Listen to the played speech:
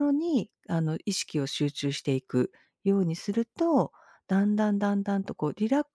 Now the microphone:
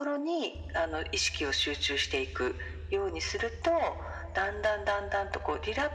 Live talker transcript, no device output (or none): none